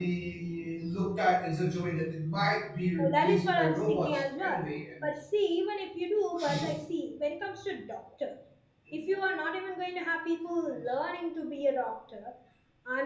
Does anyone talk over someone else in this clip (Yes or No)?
Yes